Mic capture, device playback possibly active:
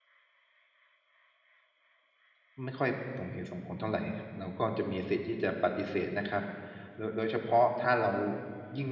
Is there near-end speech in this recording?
Yes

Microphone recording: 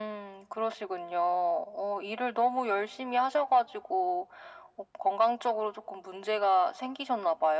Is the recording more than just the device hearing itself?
No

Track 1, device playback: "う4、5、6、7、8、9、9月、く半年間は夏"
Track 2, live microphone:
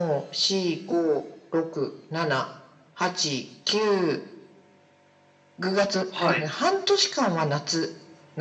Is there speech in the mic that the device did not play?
Yes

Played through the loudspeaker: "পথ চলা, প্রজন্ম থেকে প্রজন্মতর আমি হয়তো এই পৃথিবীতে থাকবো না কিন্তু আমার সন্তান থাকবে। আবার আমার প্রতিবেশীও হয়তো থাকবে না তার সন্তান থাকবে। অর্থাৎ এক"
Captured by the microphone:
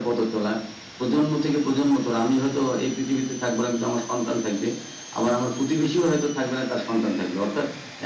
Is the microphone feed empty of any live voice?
Yes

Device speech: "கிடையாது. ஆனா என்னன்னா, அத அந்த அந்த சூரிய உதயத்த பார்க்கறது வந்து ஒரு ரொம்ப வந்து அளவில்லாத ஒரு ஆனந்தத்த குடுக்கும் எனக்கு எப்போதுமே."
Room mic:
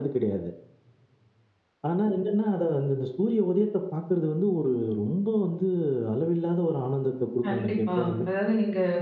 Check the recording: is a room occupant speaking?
Yes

